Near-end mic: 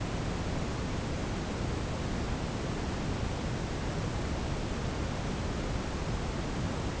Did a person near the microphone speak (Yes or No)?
No